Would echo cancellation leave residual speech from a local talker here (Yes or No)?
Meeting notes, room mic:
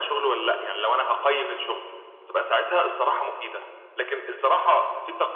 No